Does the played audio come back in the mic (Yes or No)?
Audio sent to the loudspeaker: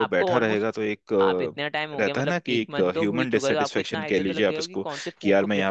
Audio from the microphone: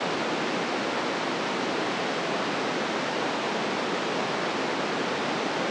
No